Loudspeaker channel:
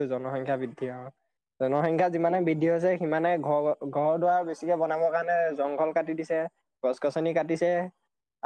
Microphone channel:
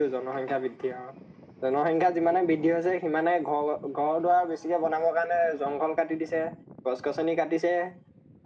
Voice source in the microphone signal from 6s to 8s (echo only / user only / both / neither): echo only